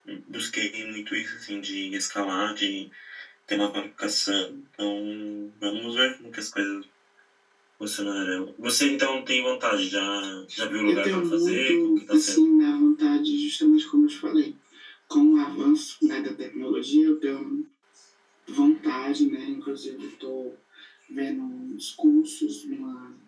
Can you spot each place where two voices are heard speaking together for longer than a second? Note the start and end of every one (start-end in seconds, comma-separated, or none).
10.9-12.5